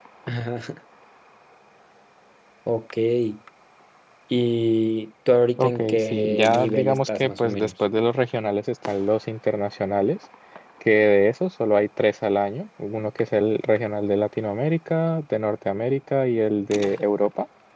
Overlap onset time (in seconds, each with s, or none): 5.6 s